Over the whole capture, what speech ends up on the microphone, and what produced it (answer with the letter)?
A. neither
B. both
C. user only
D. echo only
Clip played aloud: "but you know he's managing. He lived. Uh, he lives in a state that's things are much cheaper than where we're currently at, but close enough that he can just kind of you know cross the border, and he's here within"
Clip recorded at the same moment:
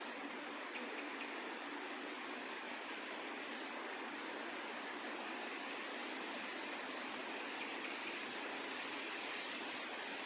A